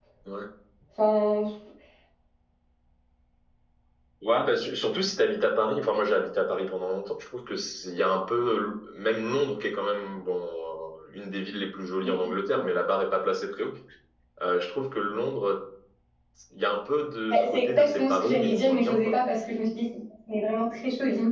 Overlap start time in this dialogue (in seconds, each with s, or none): 17.3 s